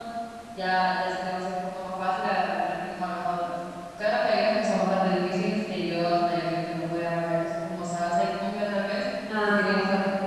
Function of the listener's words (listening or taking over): listening